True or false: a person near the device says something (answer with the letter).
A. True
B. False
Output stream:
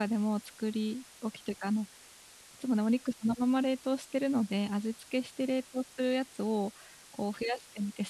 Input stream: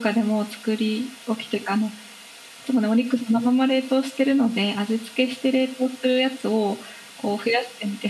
B